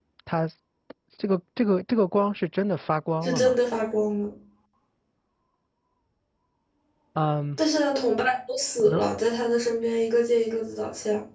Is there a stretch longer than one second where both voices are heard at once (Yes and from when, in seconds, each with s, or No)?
No